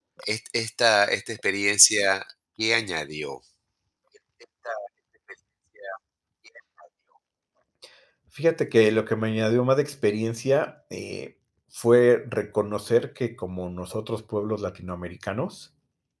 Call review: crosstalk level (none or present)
none